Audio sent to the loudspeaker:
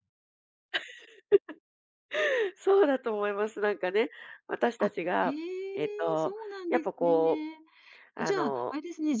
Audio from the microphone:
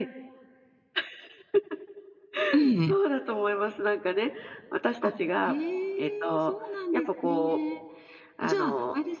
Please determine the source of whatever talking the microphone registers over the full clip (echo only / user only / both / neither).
both